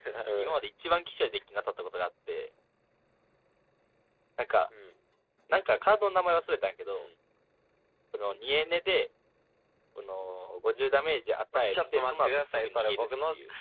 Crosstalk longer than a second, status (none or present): present